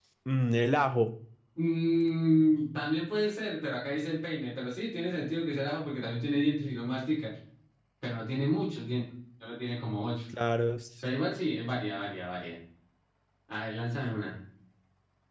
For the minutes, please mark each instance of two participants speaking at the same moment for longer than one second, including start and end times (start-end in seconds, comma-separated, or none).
none